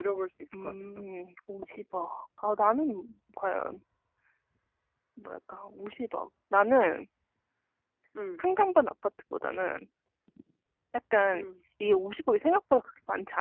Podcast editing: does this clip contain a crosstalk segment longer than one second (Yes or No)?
No